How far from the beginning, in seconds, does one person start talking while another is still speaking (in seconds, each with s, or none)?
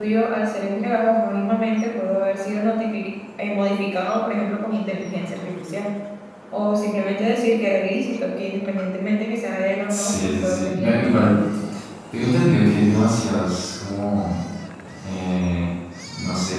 9.9 s